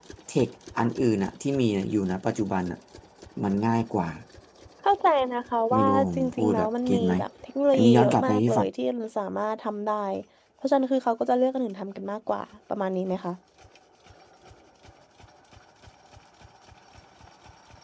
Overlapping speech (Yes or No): Yes